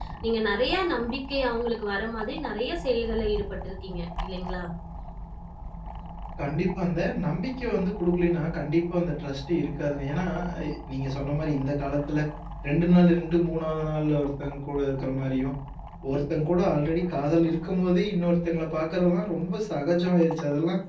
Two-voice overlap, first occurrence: none

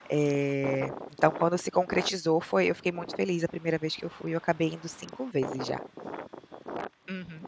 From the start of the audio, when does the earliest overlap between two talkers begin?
none

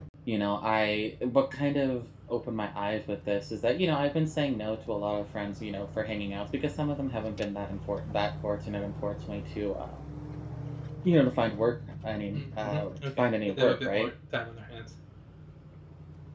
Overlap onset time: 12.3 s

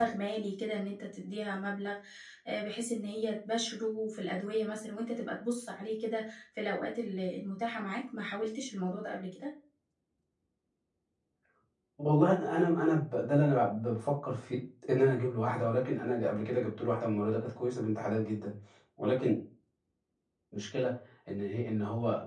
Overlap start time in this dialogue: none

